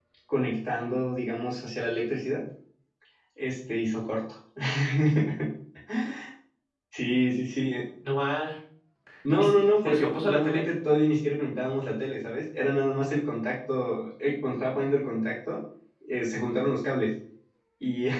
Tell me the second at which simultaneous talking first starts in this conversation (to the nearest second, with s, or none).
9 s